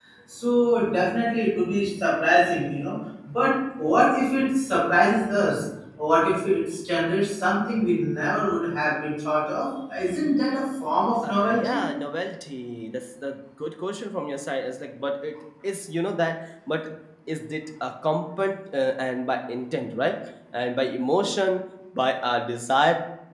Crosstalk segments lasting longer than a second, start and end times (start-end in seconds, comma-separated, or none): none